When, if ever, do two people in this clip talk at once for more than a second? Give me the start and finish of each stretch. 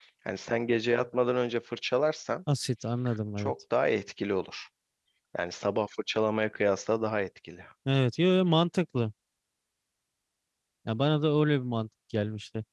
none

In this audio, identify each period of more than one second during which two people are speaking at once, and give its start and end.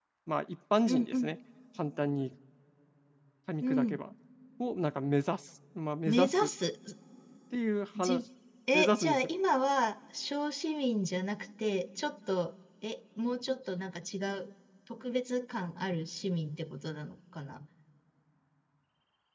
none

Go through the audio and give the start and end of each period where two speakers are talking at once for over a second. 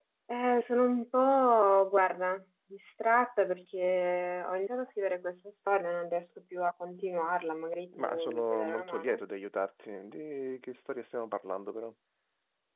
8.0-9.2

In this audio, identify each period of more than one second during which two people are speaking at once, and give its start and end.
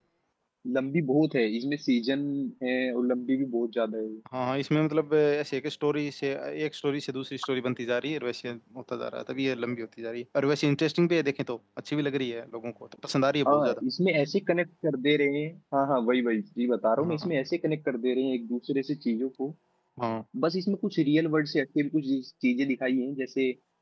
none

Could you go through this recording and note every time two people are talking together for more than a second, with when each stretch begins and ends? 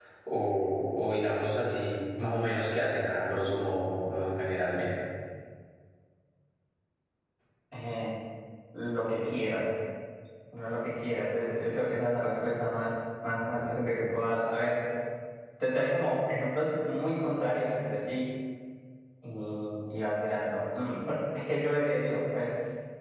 none

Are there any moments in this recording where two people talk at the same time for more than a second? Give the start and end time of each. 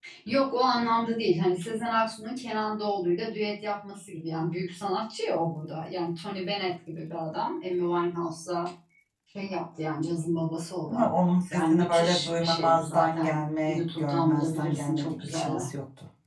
11.5-15.6

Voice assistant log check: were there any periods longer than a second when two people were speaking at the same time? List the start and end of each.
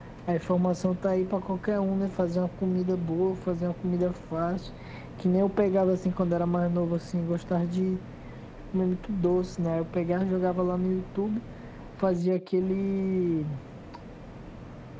none

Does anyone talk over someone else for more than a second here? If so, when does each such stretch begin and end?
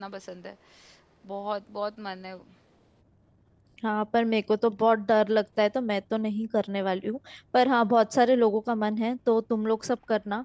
none

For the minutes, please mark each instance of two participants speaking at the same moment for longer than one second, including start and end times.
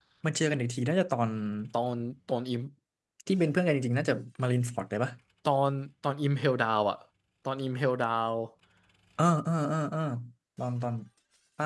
none

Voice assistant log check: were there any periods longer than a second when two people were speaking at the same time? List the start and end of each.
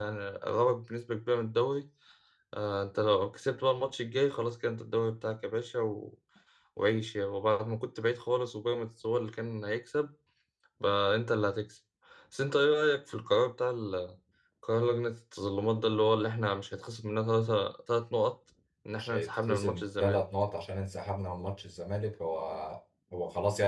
18.9-20.2

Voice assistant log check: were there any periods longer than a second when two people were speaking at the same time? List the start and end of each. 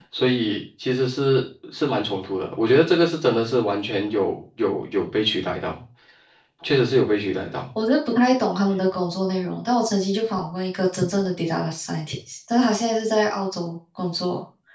none

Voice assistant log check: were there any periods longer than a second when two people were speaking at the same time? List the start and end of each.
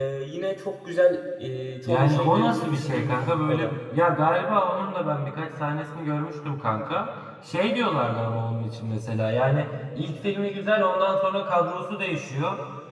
1.9-3.8

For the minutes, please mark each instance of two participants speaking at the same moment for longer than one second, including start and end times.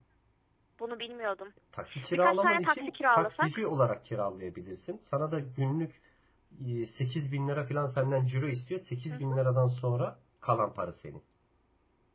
2.1-3.5

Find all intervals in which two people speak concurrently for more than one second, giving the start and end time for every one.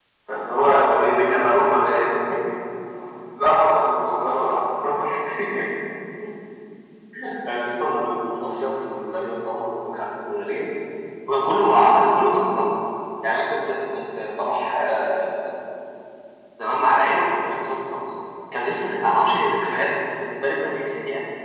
none

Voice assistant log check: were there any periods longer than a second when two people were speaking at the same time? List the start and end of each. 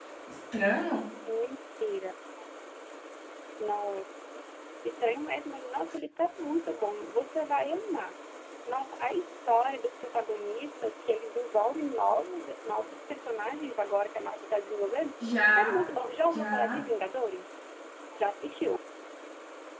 none

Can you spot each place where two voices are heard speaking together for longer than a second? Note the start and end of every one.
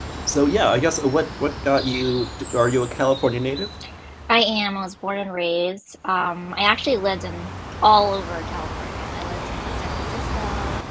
none

